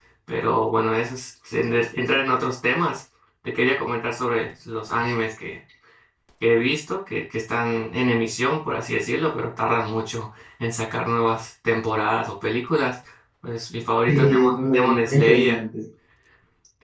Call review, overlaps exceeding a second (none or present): present